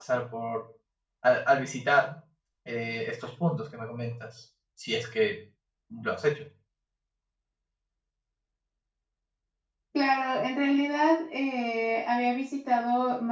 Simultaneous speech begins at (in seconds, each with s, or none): none